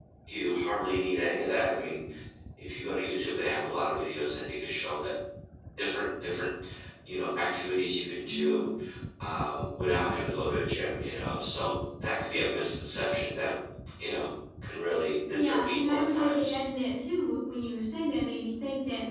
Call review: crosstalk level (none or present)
present